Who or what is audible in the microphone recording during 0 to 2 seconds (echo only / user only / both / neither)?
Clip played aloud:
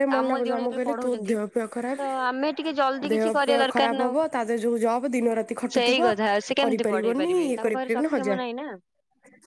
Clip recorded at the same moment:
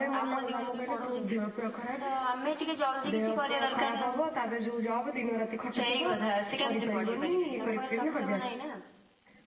echo only